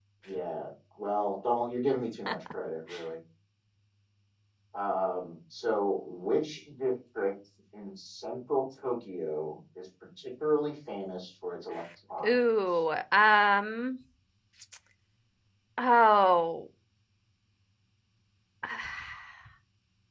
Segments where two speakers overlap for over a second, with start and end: none

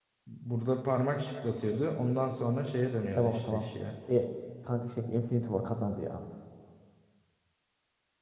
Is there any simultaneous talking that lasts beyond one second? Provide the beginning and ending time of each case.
none

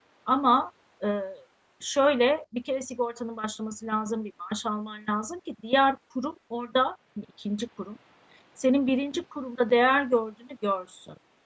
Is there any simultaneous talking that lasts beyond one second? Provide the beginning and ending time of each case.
none

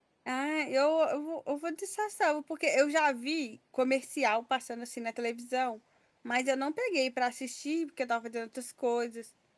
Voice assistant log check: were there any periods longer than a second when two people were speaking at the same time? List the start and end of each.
none

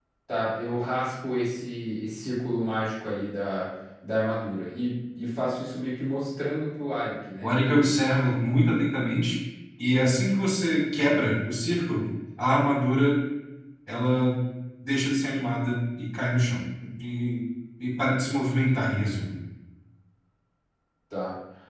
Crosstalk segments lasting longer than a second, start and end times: none

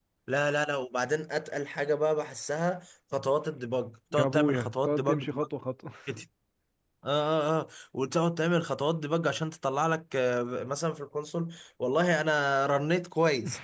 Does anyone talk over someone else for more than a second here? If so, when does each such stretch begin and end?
4.1-5.5

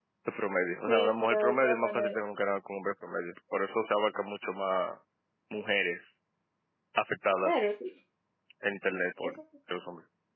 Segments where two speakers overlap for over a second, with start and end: 0.9-2.2

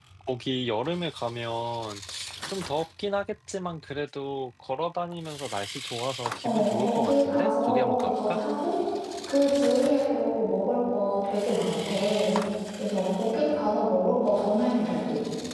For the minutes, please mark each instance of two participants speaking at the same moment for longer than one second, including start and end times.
6.4-8.4

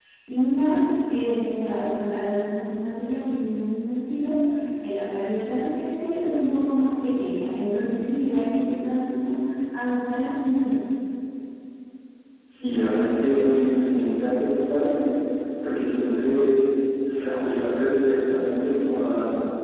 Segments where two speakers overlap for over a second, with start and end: none

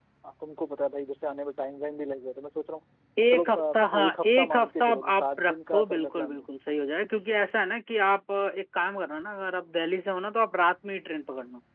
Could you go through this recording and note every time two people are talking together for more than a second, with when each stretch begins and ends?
3.3-6.6

